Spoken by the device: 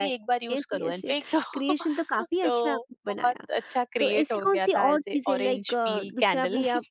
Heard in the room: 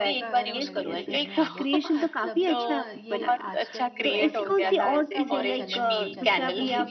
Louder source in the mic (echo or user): echo